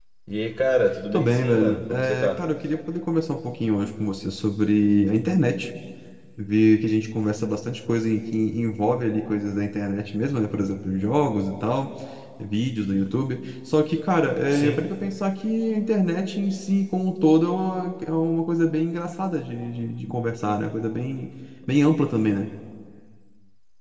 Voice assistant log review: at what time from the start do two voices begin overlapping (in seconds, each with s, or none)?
1.1 s